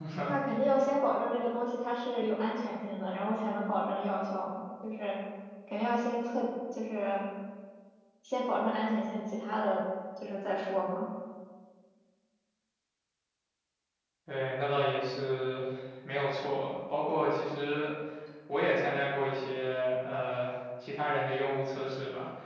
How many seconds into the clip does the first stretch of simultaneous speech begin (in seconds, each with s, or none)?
none